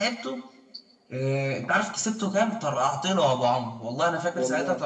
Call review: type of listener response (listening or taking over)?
listening